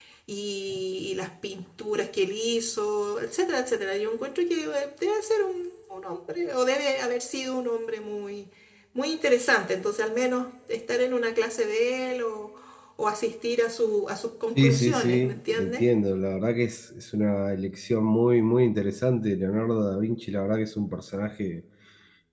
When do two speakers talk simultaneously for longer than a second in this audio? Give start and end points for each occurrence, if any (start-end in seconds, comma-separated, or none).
14.6-15.9